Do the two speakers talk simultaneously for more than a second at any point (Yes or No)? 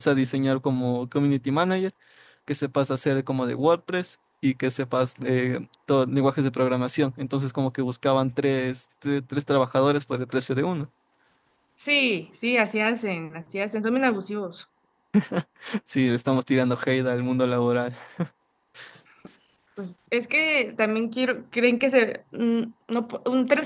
No